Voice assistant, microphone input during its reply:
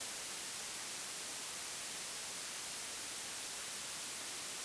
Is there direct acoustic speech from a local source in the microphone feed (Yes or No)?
No